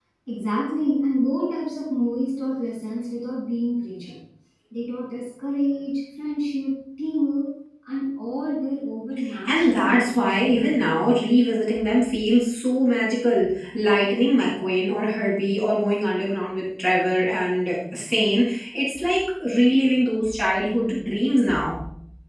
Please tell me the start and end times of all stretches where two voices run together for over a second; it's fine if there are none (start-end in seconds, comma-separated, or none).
9.4-10.7